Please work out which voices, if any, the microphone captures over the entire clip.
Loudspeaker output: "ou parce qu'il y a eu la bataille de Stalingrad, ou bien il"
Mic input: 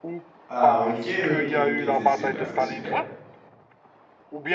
both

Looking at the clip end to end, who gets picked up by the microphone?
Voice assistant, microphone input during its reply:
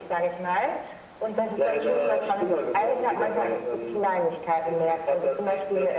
echo only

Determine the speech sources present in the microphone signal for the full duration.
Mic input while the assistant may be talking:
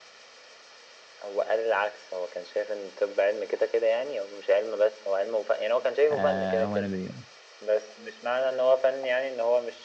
both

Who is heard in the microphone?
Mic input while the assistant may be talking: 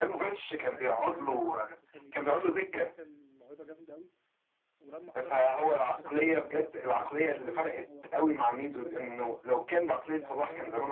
both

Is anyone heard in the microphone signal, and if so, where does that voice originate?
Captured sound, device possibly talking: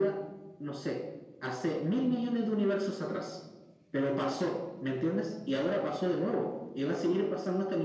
echo only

